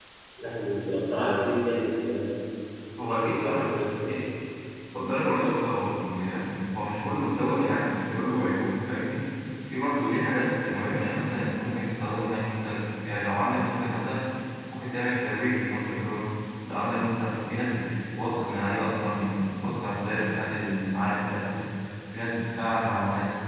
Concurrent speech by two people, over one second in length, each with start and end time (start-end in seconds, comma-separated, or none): 3.0-4.2